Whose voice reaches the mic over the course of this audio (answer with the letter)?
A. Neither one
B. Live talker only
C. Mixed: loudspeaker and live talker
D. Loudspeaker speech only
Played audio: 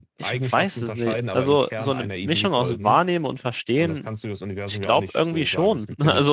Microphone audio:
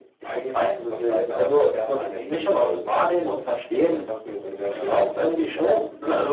C